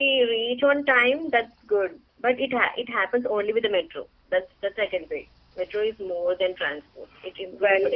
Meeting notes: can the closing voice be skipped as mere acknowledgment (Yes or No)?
Yes